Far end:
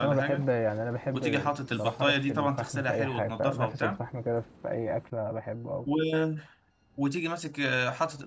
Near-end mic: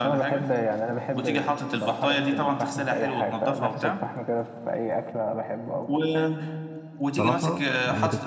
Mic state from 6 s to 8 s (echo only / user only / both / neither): both